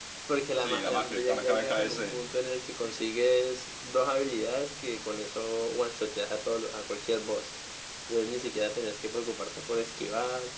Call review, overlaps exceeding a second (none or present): present